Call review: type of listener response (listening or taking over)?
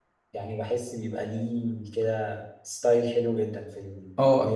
taking over